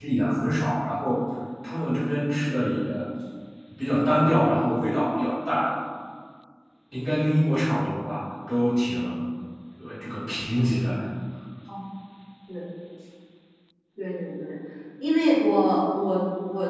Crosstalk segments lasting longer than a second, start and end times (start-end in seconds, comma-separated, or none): none